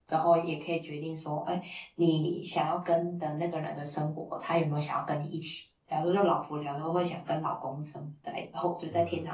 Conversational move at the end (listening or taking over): listening